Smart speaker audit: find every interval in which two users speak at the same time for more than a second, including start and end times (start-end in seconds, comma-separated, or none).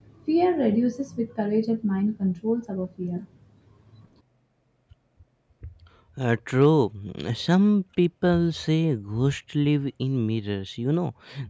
none